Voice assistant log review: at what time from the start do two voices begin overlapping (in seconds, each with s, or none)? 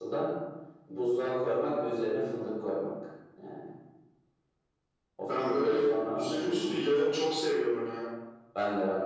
5.2 s